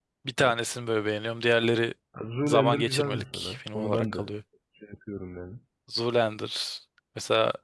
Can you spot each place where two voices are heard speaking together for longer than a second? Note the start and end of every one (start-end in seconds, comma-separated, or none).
2.4-4.2